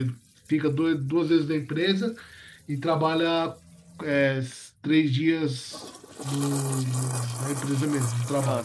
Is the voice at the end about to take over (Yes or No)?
No